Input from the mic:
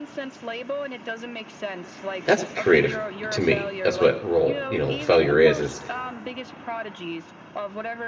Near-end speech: present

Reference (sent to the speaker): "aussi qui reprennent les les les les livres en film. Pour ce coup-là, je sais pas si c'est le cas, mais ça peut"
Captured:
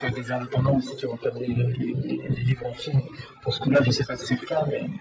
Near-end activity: none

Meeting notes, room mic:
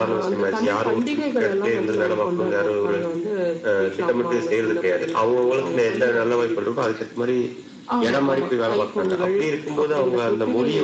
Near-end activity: none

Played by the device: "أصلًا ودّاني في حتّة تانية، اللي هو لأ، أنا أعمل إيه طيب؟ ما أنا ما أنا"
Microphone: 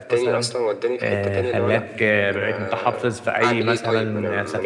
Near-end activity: present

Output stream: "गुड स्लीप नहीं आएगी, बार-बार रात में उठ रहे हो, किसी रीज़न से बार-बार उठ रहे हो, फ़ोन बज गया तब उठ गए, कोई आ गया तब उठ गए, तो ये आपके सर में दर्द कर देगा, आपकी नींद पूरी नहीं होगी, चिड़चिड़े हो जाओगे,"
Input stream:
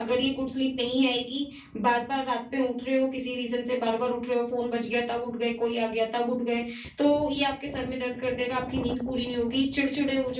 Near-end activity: none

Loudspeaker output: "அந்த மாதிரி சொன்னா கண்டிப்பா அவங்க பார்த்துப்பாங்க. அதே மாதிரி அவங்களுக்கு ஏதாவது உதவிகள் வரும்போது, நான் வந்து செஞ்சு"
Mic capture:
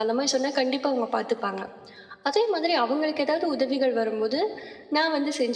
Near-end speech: none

